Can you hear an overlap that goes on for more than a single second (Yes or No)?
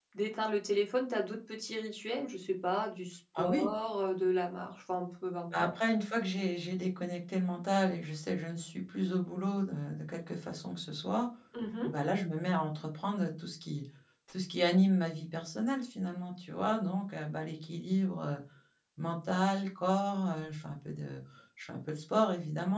No